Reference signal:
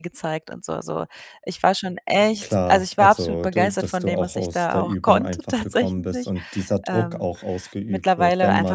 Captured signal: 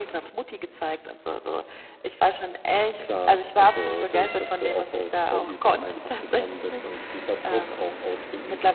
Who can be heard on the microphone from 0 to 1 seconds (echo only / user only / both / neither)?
echo only